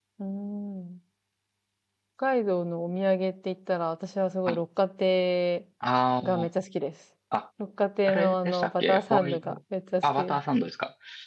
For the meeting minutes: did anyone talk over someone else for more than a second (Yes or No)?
Yes